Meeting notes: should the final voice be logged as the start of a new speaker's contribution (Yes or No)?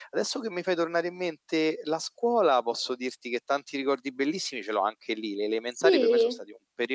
No